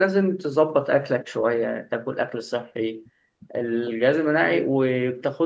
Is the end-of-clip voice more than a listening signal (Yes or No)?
No